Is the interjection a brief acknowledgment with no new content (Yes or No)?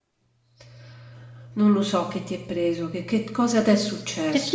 No